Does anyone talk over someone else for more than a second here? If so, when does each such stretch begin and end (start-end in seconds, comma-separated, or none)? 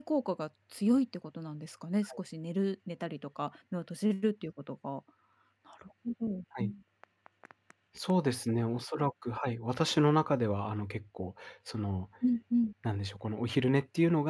none